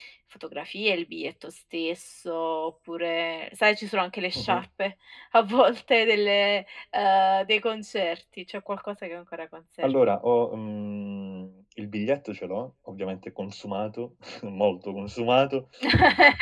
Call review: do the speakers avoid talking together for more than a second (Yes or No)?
Yes